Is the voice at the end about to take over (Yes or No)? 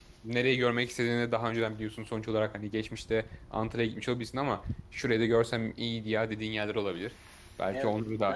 Yes